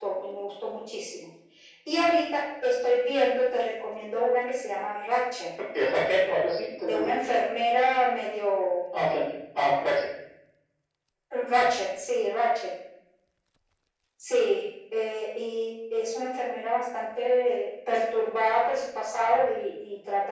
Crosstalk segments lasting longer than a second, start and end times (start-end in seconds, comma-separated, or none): none